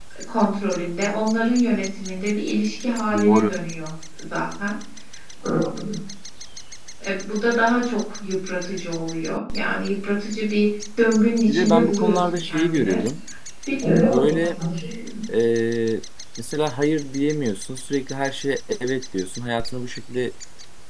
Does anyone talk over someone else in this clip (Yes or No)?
Yes